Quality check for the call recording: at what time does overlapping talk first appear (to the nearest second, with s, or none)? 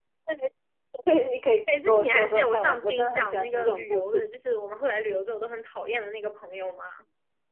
2 s